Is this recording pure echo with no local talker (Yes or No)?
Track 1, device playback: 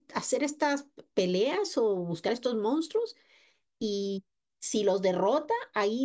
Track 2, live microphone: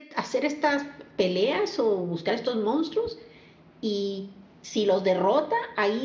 Yes